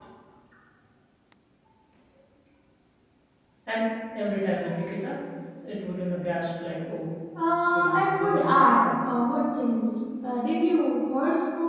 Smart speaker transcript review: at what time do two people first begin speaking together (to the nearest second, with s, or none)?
8 s